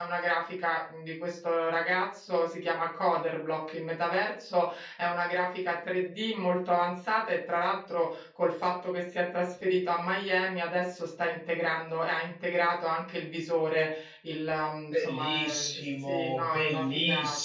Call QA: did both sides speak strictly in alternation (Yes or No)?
No